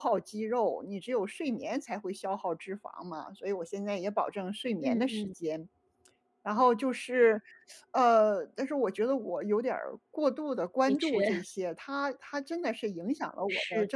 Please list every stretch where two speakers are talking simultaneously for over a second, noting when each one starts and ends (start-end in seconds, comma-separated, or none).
none